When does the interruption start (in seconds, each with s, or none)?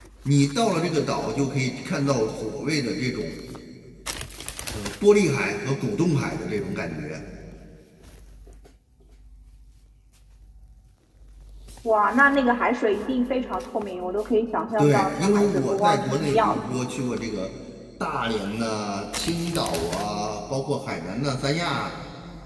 14.8 s